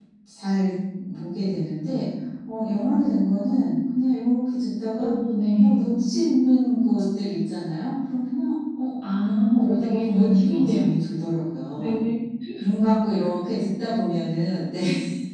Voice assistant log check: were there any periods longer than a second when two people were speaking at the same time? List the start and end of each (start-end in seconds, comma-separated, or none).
9.2-10.8